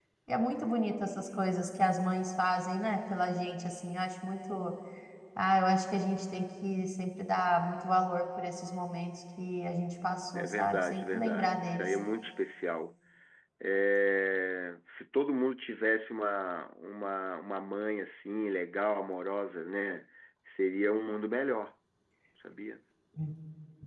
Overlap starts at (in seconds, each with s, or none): 10.3 s